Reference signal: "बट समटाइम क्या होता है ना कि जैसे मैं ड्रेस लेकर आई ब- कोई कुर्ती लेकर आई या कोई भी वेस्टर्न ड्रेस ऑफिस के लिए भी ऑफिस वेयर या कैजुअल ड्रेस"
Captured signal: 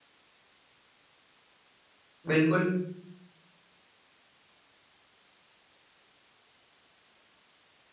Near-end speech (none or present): present